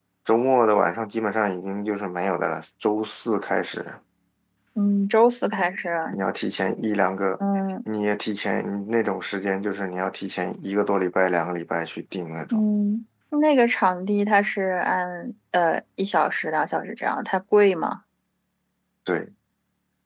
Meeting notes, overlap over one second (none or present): none